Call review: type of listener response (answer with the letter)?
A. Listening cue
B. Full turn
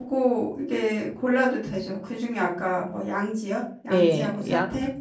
B